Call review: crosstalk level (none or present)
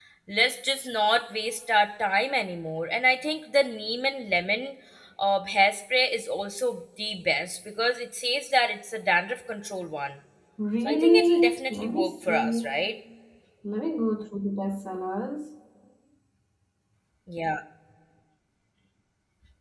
present